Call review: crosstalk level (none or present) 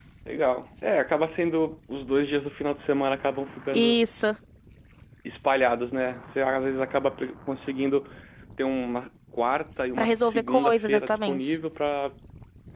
present